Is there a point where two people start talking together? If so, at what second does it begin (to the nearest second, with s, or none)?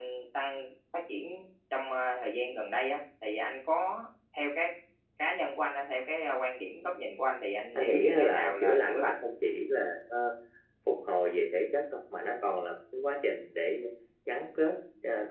8 s